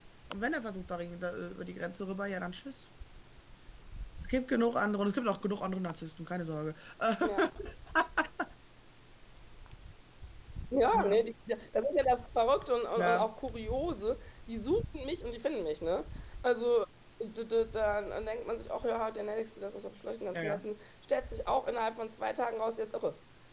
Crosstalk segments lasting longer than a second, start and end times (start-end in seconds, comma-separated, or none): none